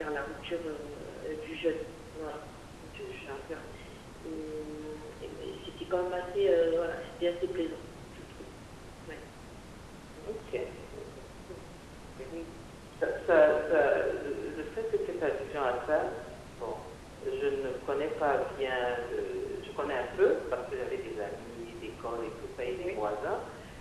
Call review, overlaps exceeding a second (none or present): none